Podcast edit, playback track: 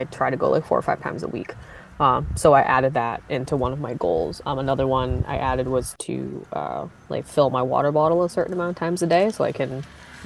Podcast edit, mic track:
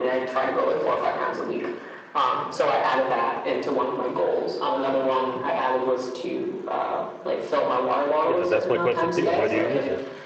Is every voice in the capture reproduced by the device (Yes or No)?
No